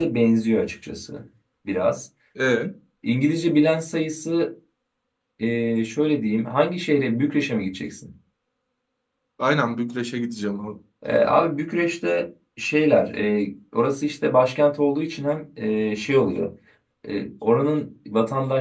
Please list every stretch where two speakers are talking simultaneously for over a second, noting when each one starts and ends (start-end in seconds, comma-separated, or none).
none